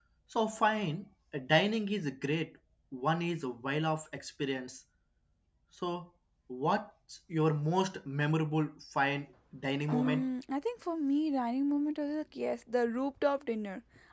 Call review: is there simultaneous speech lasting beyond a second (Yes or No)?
No